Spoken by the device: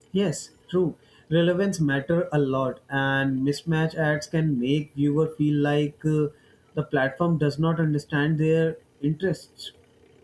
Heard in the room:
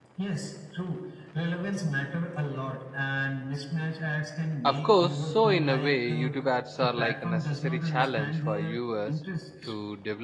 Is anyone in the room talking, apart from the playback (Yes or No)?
Yes